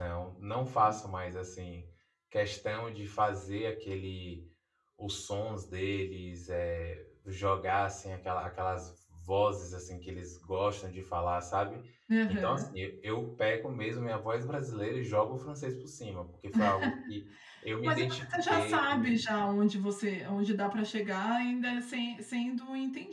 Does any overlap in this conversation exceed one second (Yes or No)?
Yes